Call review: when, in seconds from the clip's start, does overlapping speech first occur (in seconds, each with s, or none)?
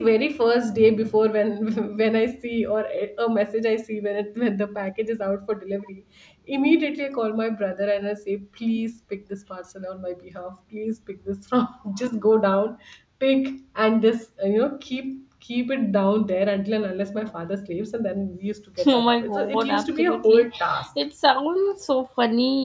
18.8 s